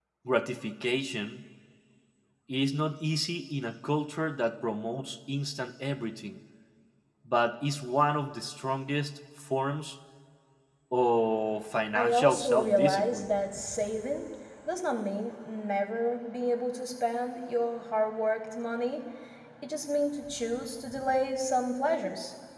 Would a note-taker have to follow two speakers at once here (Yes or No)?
Yes